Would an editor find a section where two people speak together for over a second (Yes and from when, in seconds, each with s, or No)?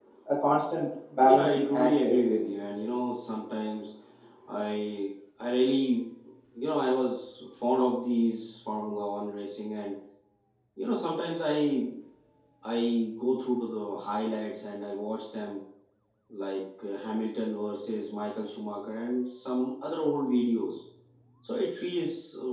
Yes, from 1.2 s